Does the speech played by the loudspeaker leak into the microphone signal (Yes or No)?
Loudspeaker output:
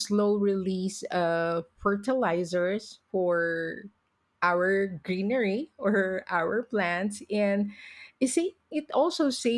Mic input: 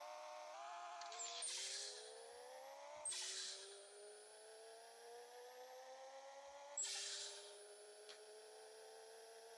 No